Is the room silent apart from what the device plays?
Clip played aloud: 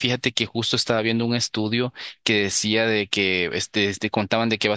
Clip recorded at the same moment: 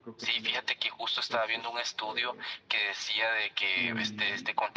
No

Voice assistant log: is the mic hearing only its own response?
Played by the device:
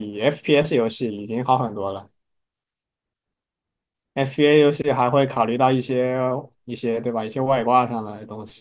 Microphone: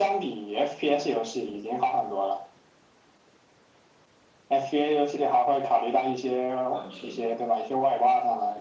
No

